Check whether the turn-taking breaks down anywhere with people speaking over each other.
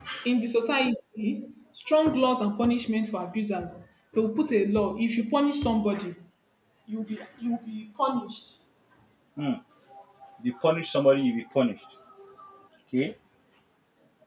No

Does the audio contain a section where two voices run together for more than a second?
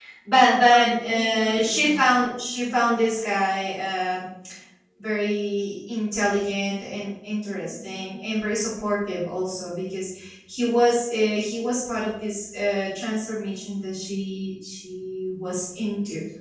Yes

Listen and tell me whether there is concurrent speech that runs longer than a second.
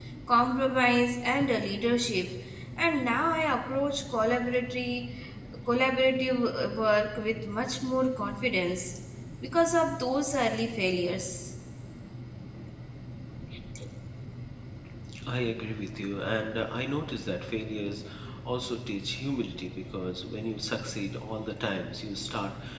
No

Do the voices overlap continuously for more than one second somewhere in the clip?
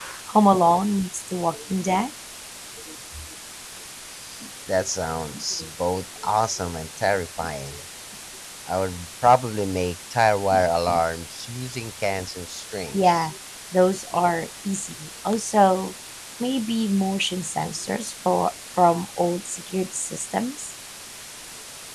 No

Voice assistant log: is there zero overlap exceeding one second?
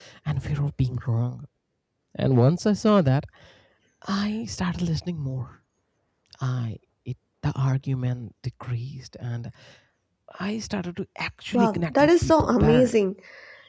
No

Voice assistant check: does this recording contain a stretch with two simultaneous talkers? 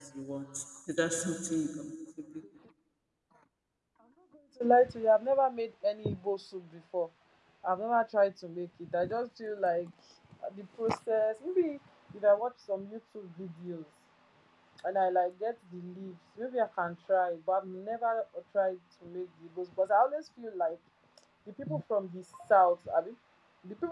No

